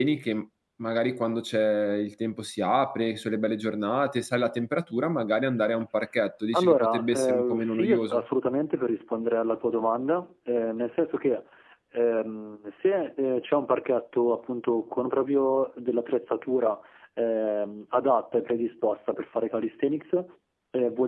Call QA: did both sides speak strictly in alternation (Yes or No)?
No